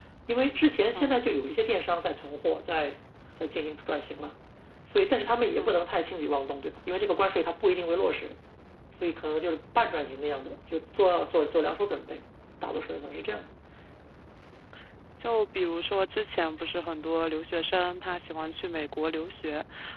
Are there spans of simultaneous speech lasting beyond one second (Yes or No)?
No